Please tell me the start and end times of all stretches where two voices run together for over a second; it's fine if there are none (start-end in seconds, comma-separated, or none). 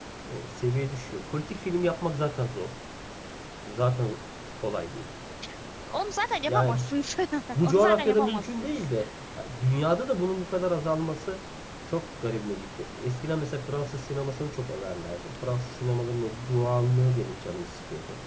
7.6-8.9